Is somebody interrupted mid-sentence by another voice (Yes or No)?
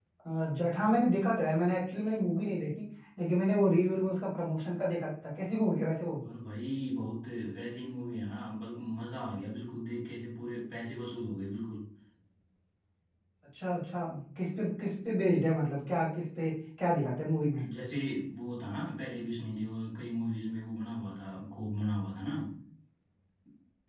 No